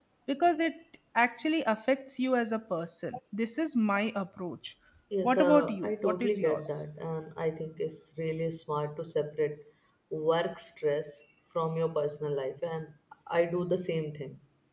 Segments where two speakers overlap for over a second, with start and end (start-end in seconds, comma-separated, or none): 5.2-6.8